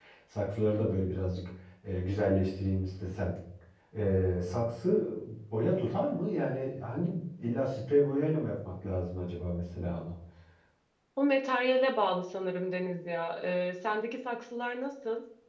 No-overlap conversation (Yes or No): Yes